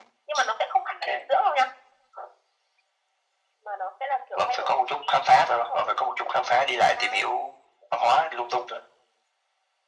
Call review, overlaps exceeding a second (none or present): present